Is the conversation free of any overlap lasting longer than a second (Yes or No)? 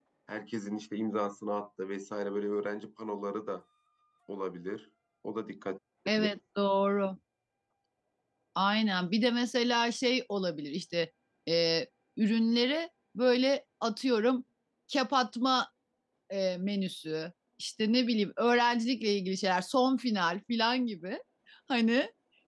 Yes